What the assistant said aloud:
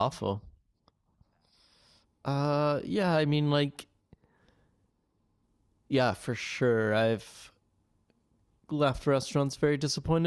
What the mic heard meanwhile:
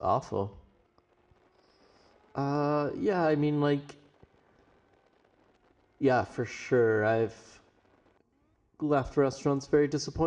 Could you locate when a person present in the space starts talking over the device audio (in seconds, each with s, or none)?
none